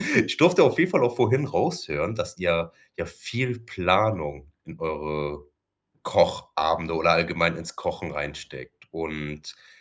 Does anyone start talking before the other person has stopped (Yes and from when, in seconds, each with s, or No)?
No